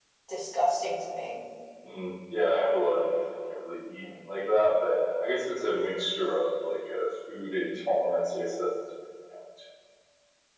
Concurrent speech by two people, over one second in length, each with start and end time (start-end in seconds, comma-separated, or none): none